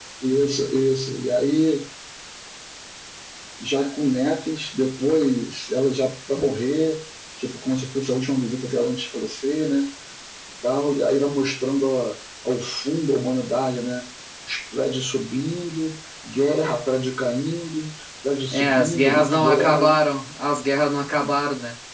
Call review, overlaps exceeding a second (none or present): present